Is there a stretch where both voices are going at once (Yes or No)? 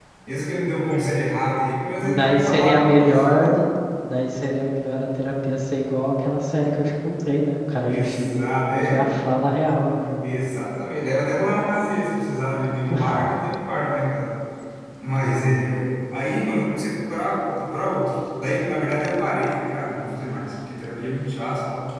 Yes